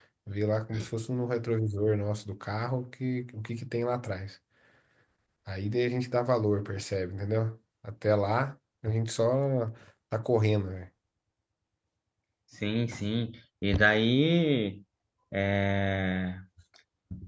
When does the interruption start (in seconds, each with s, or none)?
none